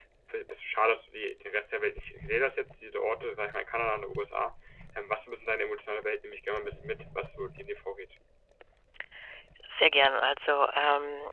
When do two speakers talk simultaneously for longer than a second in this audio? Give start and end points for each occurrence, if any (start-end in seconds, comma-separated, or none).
none